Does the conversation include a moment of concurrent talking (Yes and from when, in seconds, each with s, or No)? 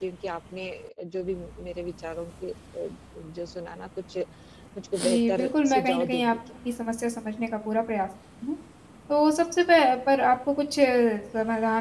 Yes, from 5.0 s